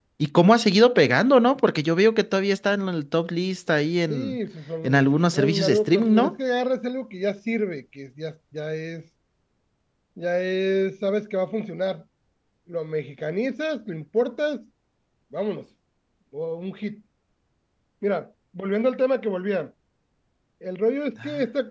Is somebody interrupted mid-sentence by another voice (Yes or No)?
Yes